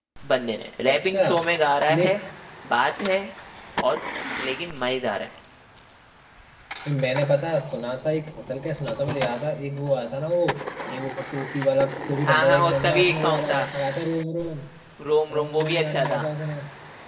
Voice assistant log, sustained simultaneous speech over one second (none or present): present